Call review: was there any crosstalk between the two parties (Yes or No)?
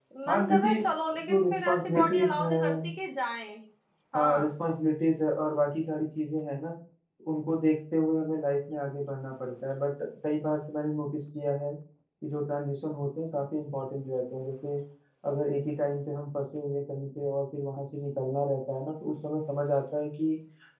Yes